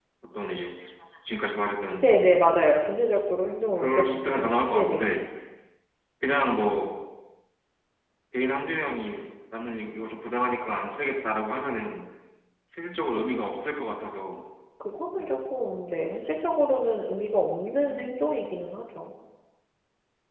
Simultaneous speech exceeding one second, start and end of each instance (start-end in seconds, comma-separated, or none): 3.8-5.1